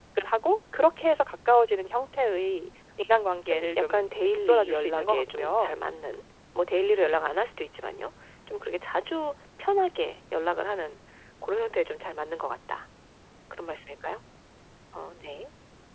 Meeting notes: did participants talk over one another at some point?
Yes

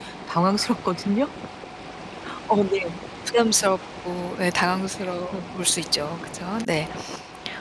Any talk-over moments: No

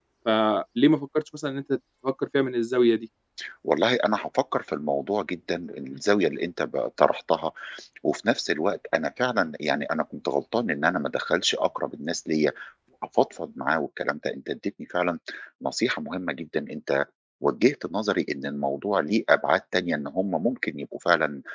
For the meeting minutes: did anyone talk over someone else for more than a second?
No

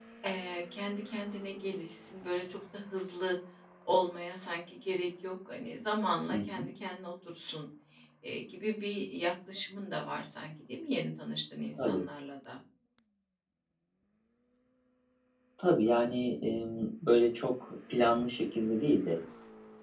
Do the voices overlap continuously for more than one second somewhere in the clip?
No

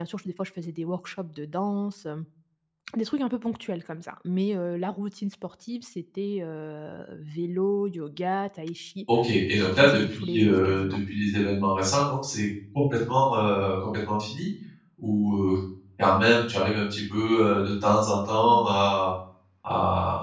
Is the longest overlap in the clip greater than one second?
Yes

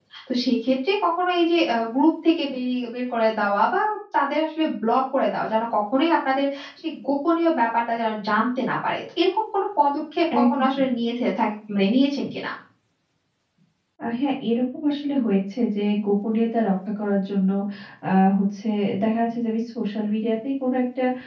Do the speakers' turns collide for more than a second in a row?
No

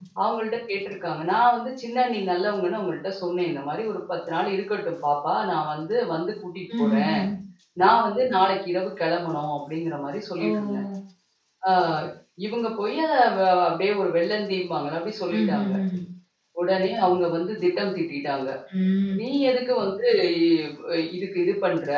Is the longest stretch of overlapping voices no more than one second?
Yes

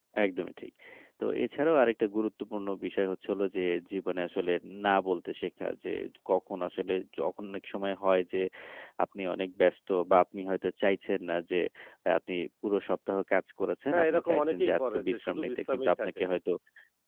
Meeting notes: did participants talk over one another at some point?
Yes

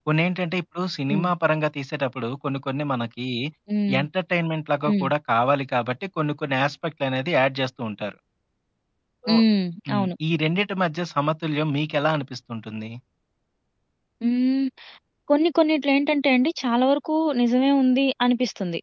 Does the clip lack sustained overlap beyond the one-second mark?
Yes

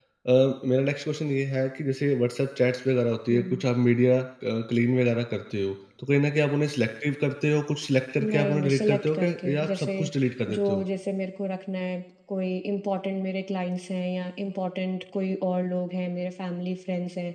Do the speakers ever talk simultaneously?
Yes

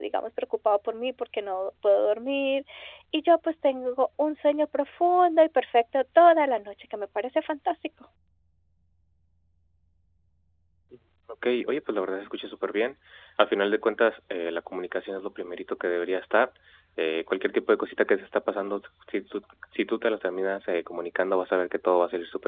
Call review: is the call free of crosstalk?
Yes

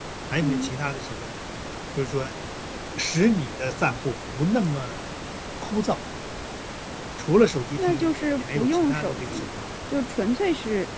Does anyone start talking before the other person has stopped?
Yes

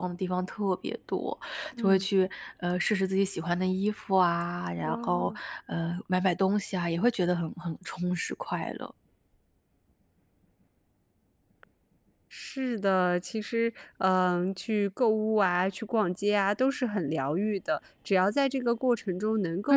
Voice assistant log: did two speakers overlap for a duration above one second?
No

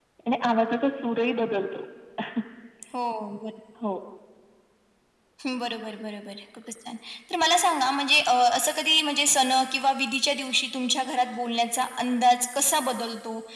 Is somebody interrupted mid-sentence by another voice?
No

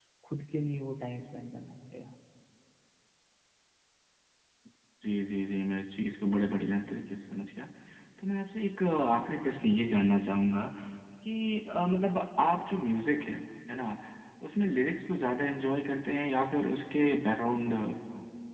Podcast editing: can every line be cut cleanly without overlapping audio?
Yes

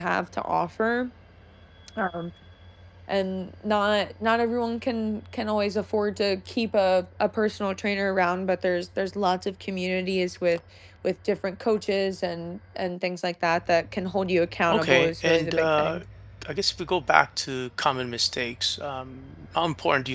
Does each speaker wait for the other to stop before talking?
No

